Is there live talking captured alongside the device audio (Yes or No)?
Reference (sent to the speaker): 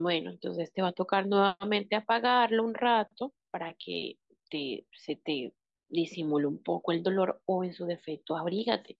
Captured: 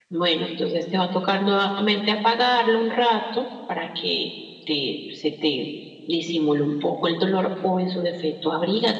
No